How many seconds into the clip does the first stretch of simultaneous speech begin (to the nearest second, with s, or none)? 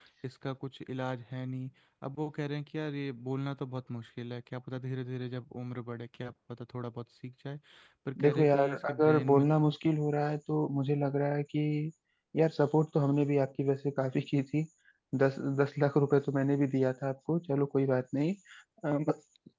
8 s